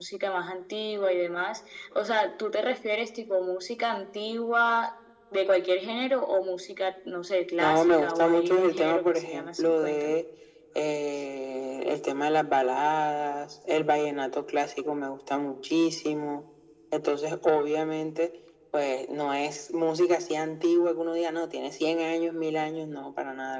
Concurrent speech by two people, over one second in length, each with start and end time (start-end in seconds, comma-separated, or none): 7.6-10.1